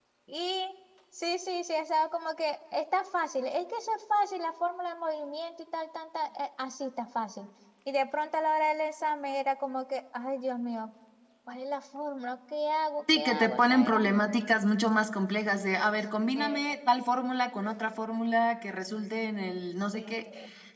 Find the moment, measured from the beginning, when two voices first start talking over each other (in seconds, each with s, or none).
13.2 s